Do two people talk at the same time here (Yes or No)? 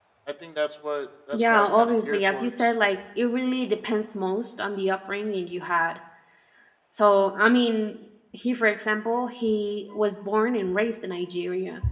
Yes